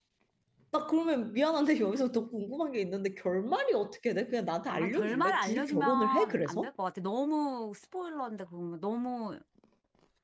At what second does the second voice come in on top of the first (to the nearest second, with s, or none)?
5 s